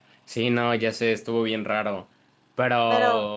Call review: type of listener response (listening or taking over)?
listening